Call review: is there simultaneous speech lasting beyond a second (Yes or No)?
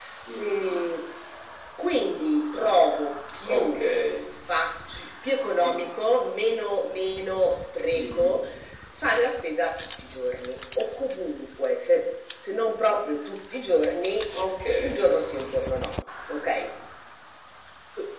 No